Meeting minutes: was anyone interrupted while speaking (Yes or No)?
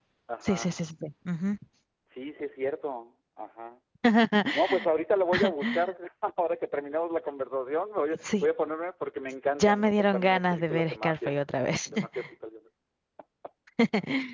Yes